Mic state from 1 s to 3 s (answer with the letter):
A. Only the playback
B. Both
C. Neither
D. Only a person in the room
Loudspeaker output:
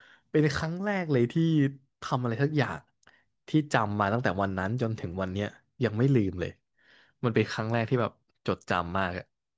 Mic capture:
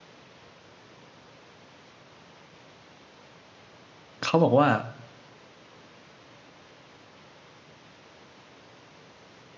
C